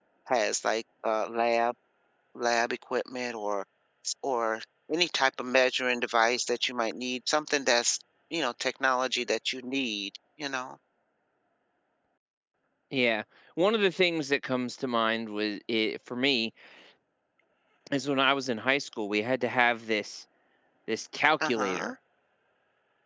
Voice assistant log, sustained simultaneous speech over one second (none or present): none